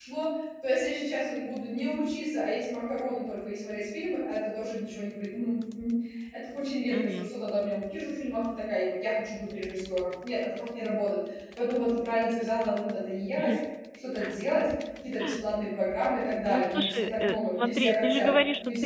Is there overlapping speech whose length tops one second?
Yes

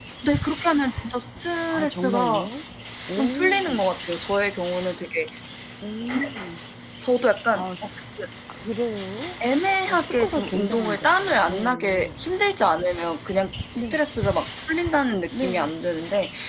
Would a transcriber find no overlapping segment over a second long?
No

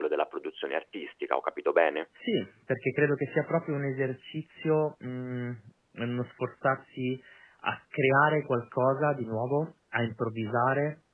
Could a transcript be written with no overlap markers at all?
Yes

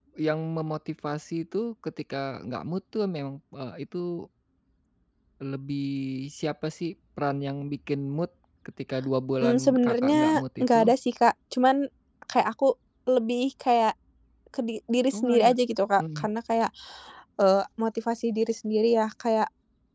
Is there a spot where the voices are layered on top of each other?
Yes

